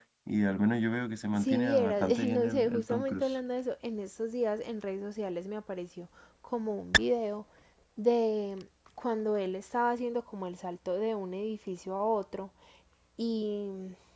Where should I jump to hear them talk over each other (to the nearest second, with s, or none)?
1 s